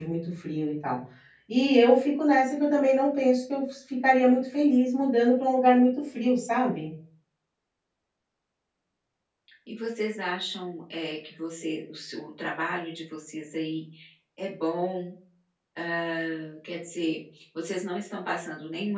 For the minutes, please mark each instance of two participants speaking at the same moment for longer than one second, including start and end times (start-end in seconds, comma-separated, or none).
none